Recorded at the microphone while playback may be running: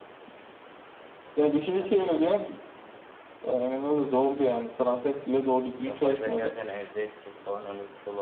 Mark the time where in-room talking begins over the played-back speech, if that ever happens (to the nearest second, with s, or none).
6 s